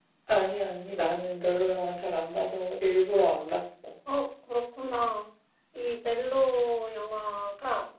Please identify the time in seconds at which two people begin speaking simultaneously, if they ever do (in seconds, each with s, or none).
none